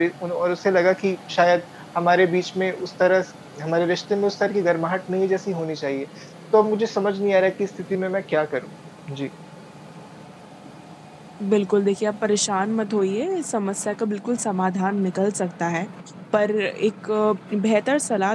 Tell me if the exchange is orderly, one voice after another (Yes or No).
Yes